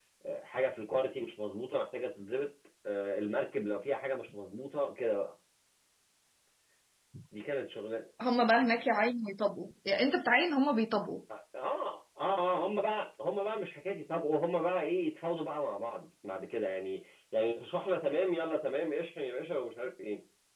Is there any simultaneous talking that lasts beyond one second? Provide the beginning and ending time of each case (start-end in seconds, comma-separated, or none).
none